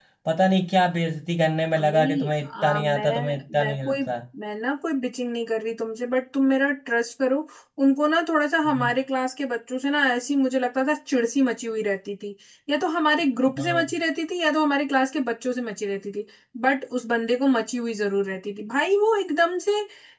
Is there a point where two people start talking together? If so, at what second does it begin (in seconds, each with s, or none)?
1.8 s